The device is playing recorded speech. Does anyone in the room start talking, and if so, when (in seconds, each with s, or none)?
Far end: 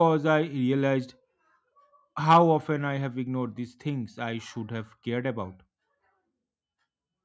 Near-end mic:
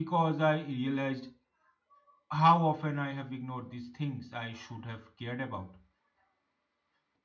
none